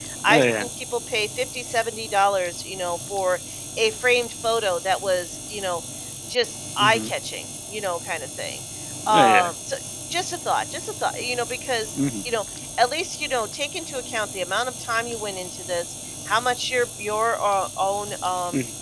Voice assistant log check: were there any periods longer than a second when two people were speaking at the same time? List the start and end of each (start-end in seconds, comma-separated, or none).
none